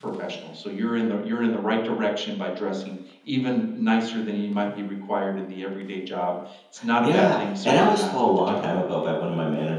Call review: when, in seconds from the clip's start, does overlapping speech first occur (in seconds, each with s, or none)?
7.0 s